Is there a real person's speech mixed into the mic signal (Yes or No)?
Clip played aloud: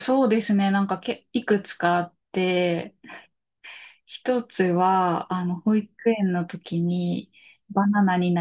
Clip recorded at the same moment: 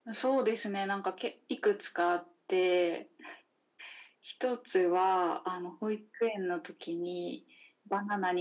No